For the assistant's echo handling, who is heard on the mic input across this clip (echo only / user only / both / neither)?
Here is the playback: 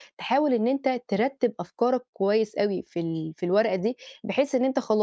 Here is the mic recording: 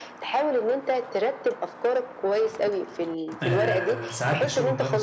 both